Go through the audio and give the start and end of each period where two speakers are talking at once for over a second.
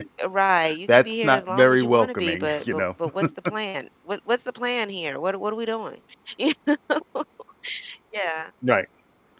0.9-2.9

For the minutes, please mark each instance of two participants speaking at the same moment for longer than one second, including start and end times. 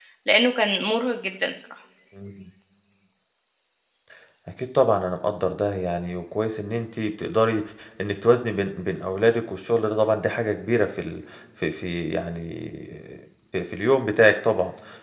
none

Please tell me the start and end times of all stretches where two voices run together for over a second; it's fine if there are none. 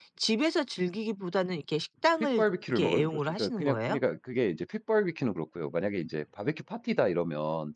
2.2-4.0

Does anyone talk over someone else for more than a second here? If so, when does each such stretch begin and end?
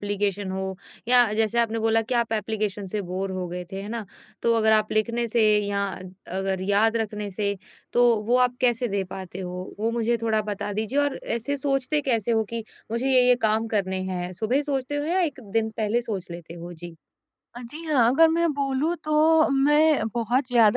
none

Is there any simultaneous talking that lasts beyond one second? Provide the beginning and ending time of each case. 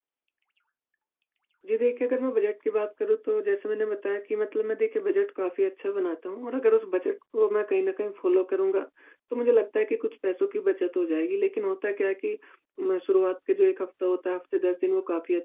none

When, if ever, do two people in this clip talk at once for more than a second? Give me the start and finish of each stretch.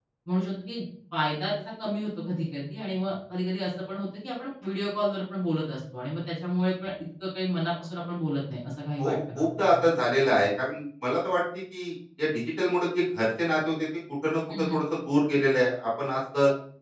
9.0-10.3

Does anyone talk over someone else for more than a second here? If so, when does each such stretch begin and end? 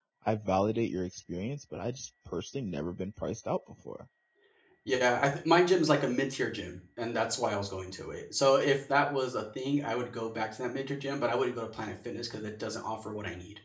none

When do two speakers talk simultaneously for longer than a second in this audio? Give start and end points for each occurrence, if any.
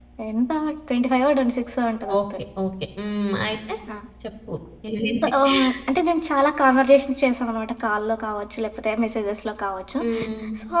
none

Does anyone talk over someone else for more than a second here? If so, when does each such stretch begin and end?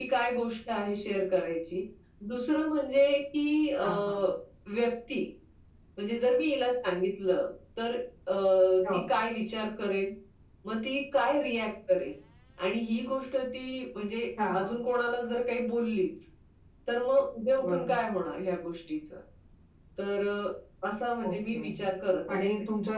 none

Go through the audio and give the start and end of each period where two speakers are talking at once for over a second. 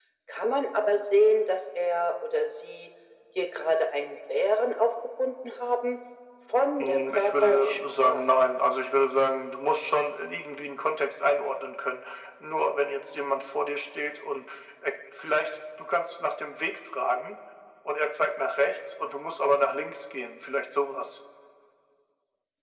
6.8-8.2

